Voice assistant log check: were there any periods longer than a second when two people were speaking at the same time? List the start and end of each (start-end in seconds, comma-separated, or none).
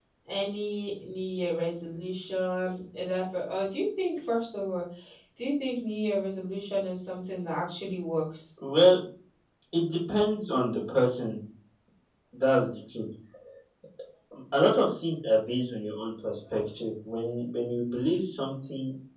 none